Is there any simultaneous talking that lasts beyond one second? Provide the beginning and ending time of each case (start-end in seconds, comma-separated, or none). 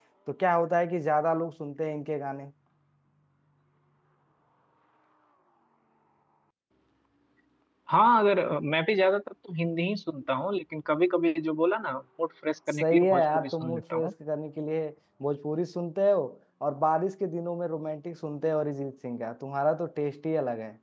12.7-14.1